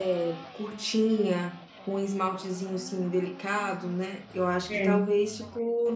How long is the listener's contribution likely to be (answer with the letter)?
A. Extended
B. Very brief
B